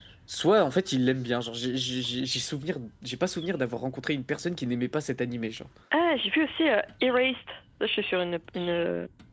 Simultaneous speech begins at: none

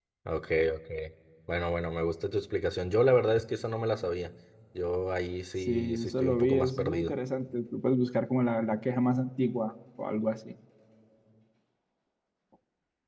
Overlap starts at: 6 s

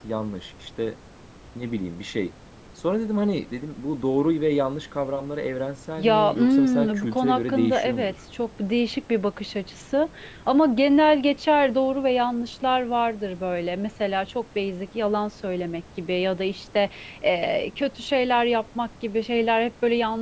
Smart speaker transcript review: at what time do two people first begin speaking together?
6 s

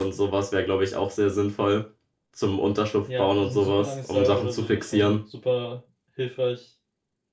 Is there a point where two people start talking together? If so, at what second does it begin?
3 s

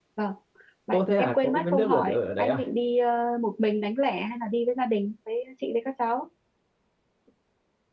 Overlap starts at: 1 s

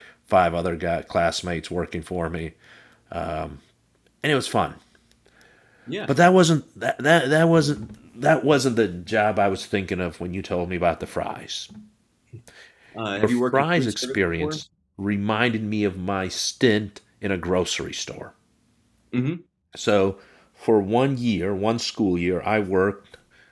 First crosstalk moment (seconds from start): 13 s

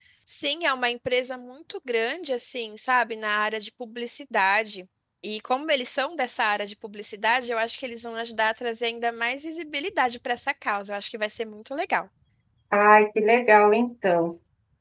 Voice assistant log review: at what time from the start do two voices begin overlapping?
none

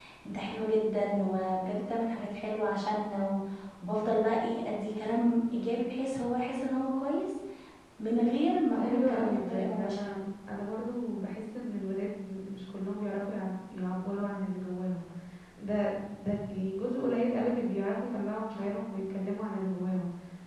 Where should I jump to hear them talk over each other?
9 s

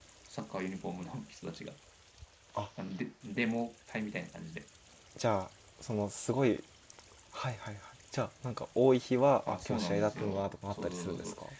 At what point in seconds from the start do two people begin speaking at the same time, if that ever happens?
9 s

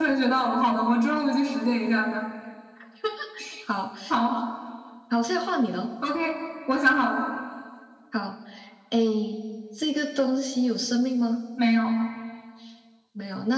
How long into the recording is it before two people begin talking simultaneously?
none

